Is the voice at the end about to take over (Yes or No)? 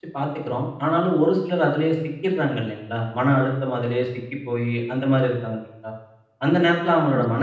No